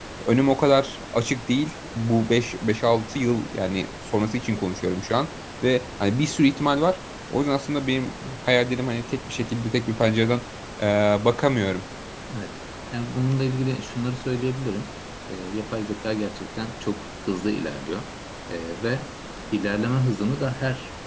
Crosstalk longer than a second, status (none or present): none